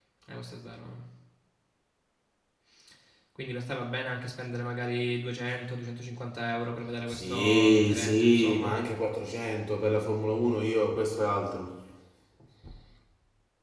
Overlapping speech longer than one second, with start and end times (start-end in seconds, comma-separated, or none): 7.1-8.8